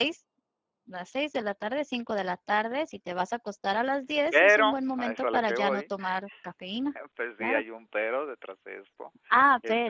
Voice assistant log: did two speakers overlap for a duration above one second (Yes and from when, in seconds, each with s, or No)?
Yes, from 4.3 s